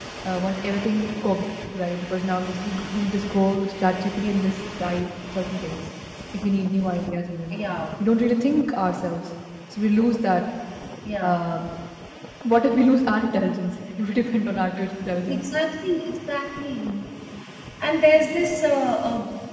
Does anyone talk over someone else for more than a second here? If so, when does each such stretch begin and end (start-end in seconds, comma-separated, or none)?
none